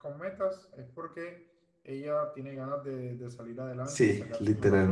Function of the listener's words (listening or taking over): taking over